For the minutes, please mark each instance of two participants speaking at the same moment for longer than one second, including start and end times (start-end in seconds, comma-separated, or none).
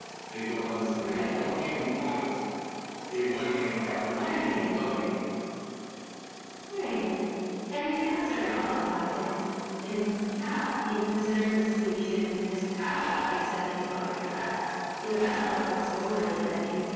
none